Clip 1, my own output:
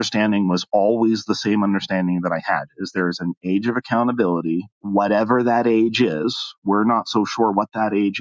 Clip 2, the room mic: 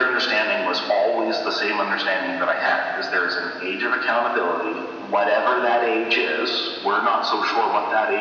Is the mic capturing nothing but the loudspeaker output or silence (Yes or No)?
Yes